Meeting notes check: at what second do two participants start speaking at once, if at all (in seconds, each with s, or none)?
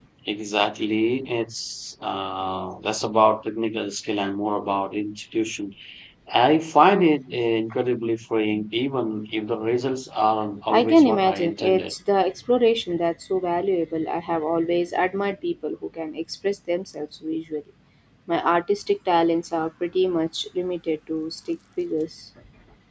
10.7 s